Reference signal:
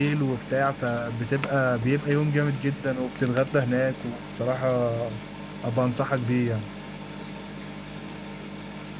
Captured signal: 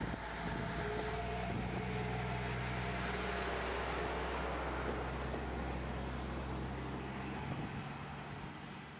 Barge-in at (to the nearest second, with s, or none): none